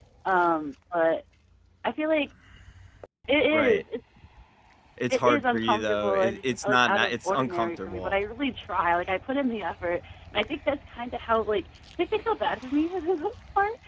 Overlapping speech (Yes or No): Yes